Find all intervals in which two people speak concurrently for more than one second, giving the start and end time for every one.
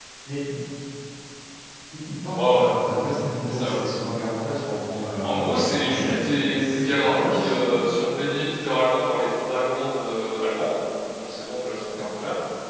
5.2-8.0

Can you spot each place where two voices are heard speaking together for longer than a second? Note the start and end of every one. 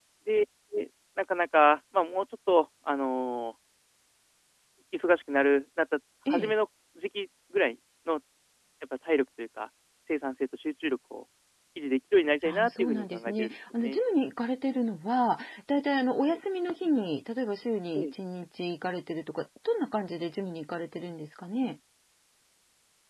12.4-14.0

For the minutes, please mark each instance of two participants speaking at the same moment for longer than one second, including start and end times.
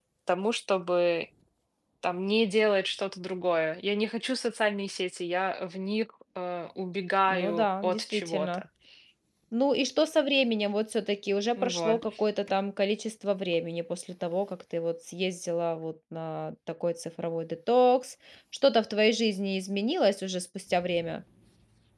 7.3-8.6

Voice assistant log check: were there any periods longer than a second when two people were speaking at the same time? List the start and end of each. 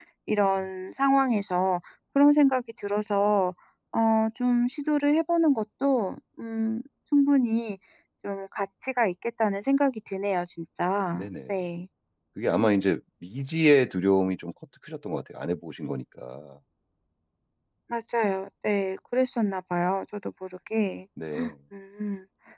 none

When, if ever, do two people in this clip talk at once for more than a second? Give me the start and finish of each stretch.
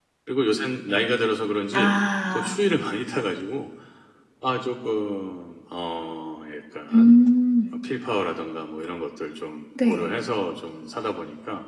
none

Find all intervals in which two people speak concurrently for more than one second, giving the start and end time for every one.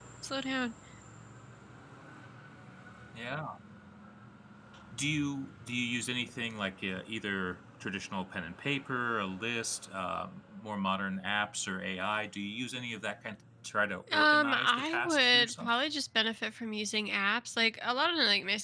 14.1-15.7

